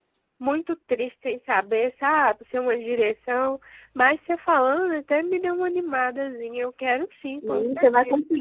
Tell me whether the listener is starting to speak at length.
Yes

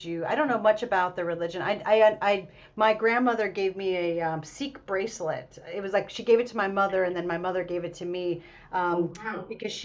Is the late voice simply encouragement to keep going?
Yes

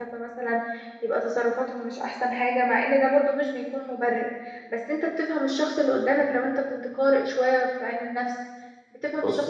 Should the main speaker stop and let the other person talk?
No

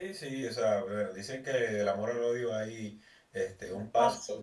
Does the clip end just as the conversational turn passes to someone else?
No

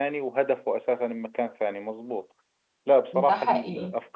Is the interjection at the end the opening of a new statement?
No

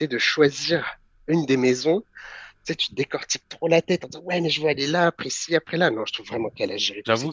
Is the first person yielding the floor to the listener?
Yes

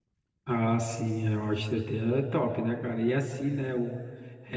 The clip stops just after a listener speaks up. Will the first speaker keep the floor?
Yes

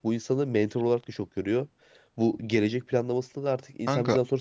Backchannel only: Yes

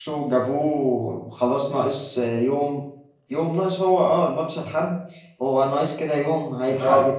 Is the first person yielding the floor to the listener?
No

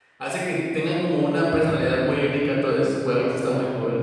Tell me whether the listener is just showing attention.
No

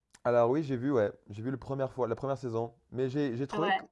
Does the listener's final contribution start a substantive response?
No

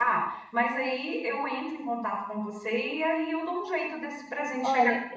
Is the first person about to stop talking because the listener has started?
Yes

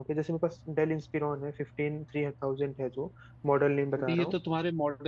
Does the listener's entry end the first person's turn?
Yes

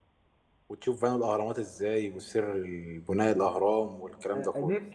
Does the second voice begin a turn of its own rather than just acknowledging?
Yes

